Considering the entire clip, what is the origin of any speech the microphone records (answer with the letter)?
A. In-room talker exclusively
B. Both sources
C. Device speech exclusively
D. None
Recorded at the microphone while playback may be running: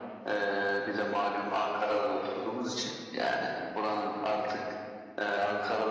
C